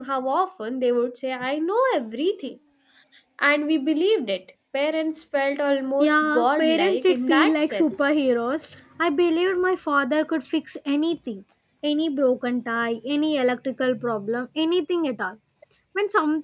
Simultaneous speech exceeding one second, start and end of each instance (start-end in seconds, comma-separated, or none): 6.0-8.0